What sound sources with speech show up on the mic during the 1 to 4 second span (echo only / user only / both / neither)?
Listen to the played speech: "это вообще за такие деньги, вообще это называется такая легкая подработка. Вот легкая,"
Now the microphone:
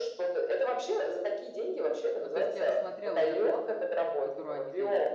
both